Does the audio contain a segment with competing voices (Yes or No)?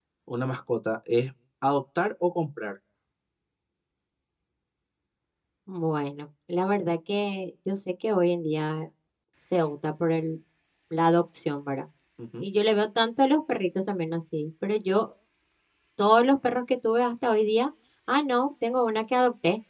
No